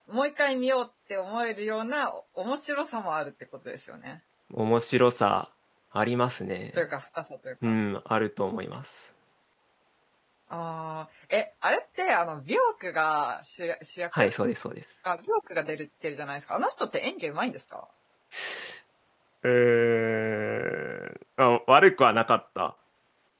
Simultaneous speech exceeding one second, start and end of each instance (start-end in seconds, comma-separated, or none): none